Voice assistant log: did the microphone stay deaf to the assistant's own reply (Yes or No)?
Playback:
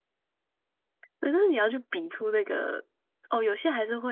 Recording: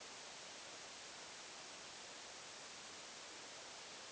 Yes